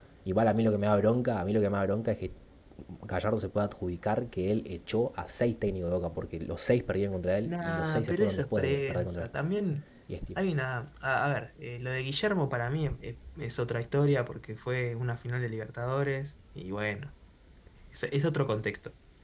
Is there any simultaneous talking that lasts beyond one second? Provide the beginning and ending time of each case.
7.5-9.3

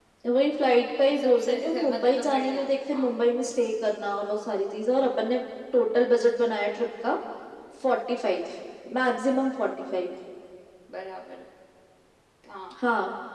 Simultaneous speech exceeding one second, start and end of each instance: 1.1-3.1

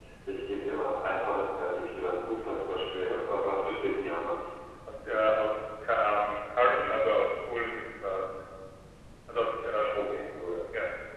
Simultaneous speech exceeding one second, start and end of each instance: none

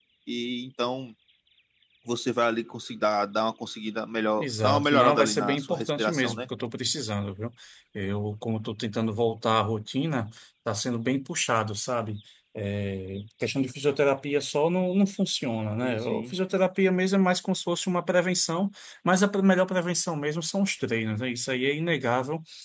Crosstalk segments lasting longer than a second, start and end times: 4.4-6.4

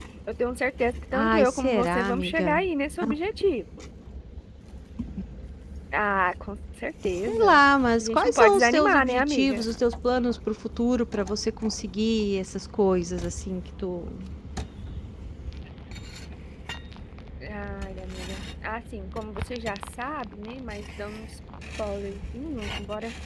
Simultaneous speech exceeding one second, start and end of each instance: 1.1-2.6, 8.0-9.7

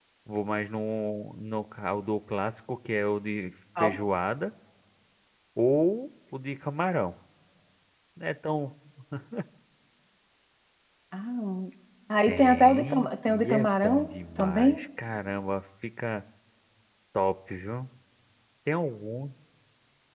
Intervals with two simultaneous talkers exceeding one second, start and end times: 12.3-14.8

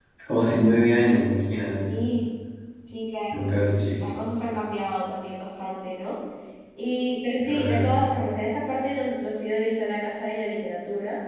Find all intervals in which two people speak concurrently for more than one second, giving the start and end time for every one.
none

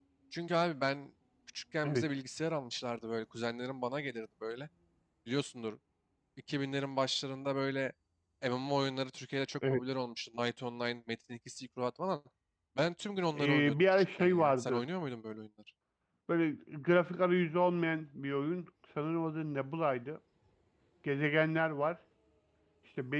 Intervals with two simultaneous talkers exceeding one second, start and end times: 13.3-14.8

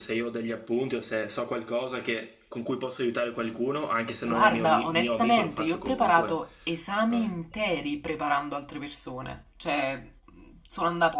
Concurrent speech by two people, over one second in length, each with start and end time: 4.2-6.4

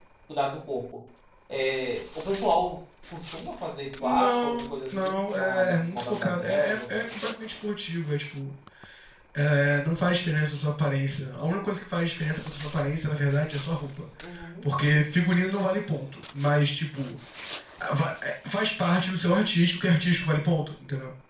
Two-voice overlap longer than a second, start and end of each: 4.0-7.0

